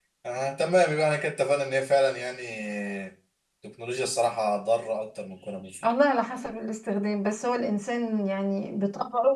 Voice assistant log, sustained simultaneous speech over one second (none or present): none